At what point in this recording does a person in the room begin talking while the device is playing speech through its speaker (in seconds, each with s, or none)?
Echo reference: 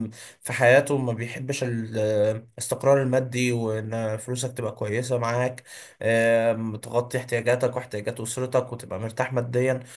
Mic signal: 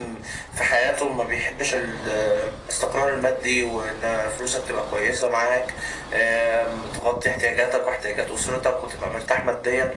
none